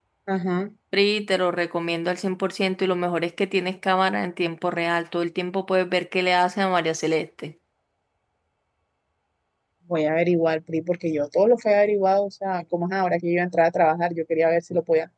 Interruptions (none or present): none